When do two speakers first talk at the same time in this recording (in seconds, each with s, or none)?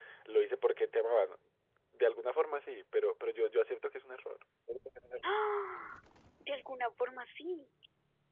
none